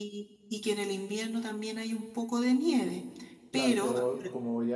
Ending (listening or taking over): taking over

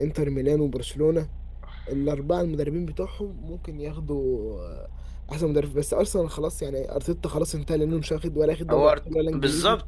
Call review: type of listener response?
taking over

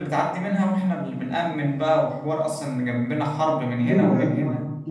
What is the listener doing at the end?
taking over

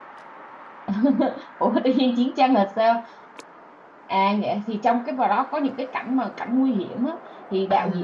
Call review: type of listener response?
listening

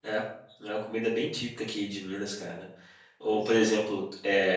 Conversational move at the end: listening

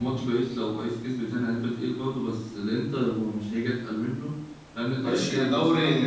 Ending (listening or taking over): taking over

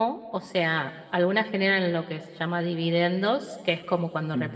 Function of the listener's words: listening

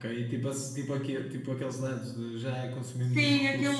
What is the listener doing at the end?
taking over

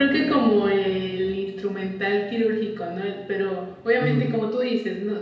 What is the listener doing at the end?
listening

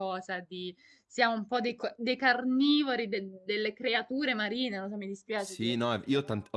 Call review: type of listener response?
taking over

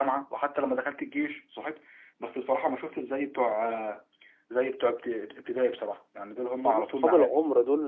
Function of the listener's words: taking over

